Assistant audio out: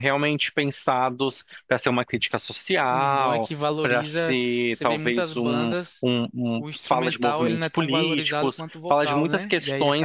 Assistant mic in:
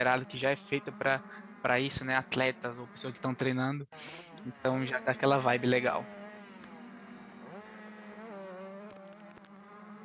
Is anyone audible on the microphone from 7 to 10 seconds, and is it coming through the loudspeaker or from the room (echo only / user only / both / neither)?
neither